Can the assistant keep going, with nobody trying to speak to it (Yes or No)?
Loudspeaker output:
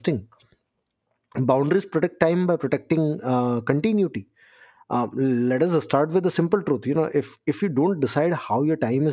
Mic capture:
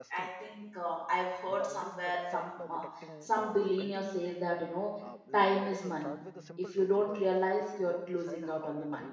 No